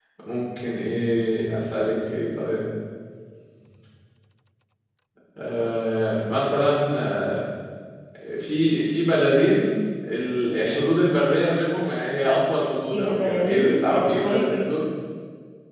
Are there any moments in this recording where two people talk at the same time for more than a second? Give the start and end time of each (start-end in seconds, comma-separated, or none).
12.9-14.7